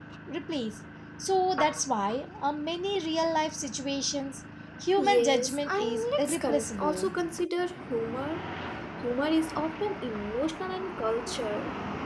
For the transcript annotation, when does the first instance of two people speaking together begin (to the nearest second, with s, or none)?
5 s